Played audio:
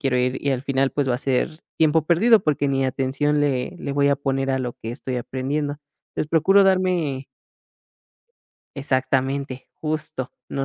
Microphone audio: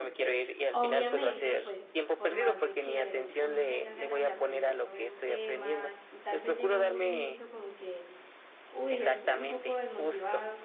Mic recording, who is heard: both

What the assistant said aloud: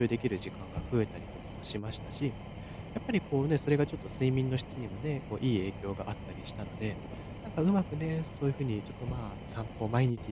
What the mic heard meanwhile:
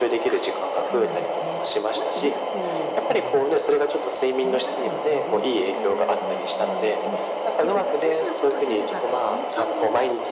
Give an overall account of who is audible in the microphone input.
both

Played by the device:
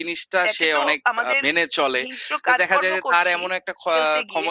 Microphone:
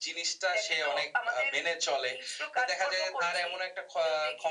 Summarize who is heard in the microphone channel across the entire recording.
echo only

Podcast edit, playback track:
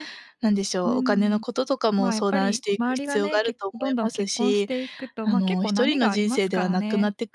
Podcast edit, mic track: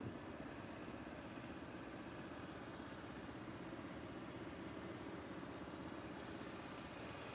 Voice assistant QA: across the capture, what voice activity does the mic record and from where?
neither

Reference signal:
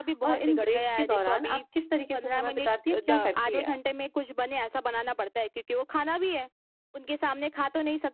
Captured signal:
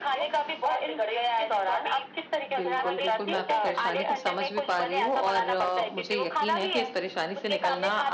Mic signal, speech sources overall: both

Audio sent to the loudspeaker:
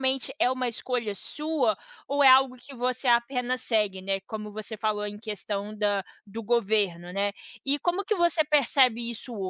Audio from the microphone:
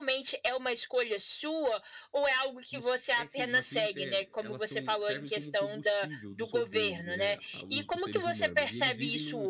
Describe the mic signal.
both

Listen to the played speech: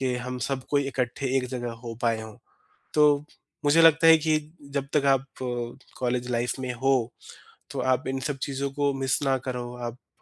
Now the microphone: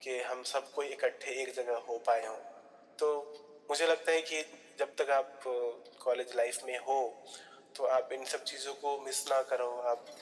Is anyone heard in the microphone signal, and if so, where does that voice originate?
echo only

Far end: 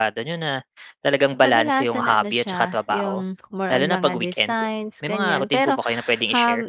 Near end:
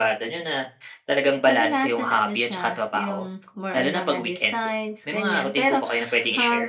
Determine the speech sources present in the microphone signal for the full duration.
echo only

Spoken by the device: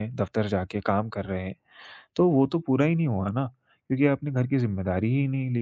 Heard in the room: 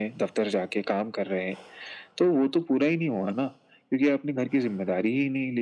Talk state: echo only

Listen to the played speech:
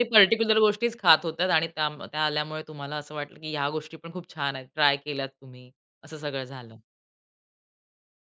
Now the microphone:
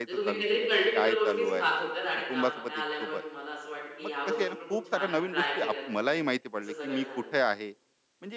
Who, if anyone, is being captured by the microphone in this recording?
both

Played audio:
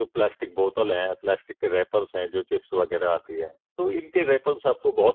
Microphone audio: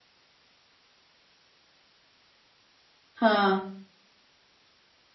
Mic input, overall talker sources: user only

